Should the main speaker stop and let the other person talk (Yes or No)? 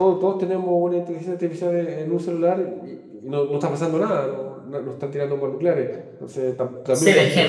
Yes